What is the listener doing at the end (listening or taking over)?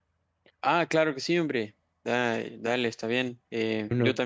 listening